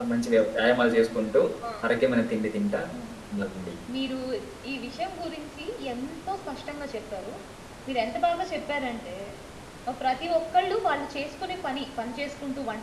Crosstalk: none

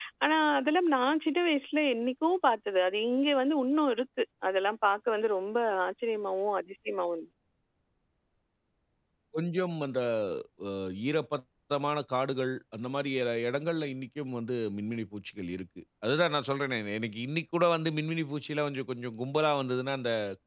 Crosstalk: none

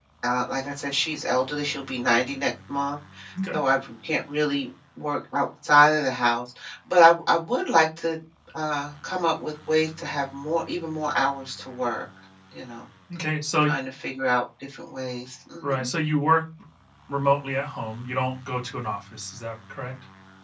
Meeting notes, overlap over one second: none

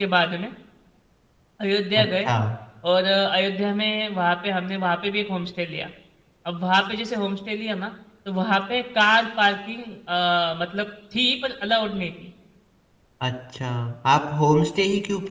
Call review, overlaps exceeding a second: none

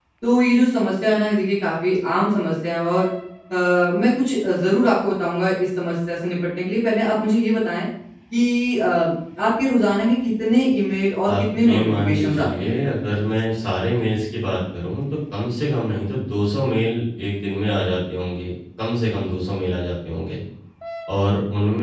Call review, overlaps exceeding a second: present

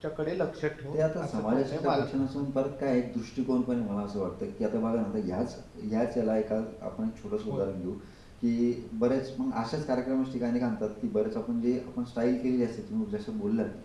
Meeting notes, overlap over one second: present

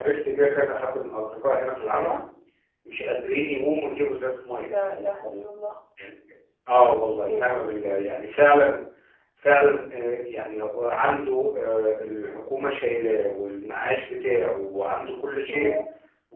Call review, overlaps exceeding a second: none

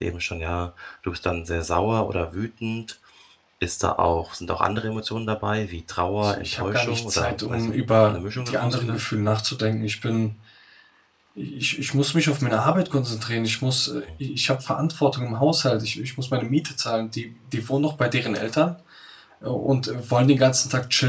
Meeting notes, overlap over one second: present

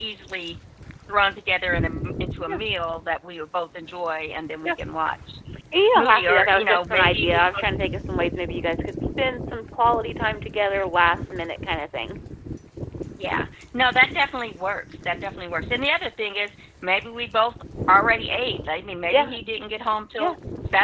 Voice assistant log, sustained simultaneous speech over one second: present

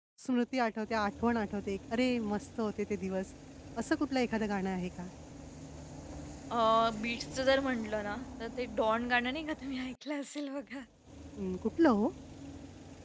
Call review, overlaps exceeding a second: none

